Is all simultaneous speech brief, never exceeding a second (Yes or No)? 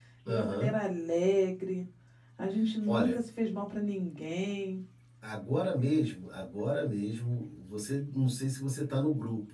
Yes